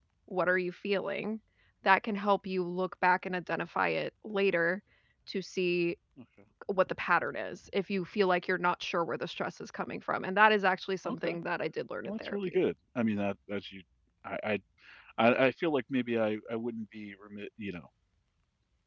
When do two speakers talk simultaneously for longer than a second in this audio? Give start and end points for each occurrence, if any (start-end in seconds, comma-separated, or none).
none